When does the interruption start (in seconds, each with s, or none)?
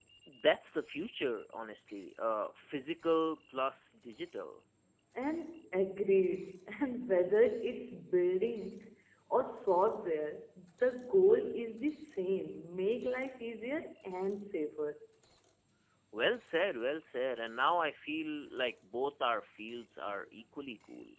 none